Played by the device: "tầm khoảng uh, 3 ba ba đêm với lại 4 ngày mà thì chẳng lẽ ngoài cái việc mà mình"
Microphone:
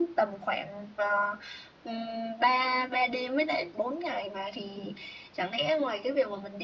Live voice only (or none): none